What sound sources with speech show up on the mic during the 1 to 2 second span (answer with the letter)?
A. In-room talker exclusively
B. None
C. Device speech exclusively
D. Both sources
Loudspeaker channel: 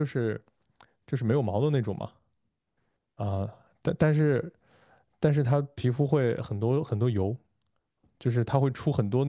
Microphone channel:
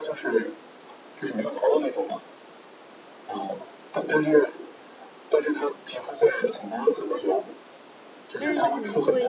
C